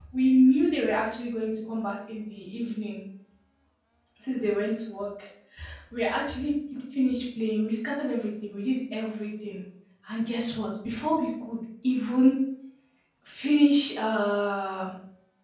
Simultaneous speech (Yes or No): No